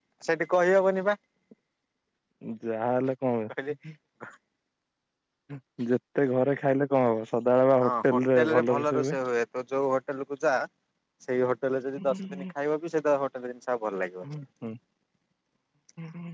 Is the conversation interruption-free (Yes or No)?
No